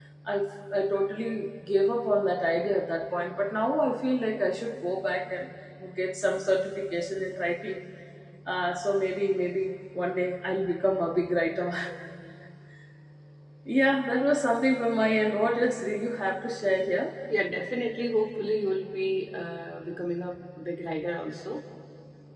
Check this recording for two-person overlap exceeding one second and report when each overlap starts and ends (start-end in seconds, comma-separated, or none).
none